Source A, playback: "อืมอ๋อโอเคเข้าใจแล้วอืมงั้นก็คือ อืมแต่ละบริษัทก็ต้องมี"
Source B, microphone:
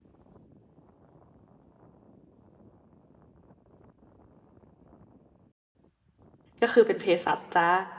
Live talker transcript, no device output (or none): ก็คือเป็นเภสัชจ้า